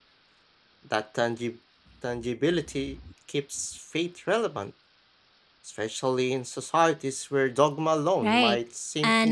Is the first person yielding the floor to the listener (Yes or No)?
Yes